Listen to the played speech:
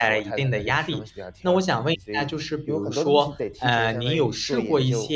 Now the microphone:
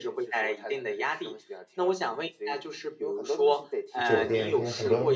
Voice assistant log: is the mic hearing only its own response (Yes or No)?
No